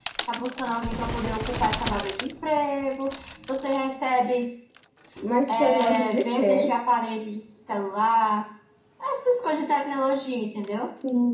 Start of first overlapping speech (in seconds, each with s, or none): 5.5 s